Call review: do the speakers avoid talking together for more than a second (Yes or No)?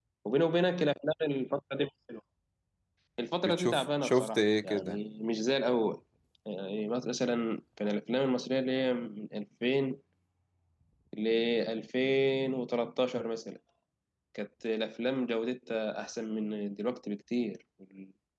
No